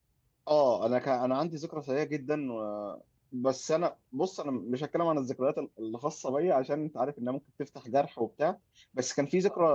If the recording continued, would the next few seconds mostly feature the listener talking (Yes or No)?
No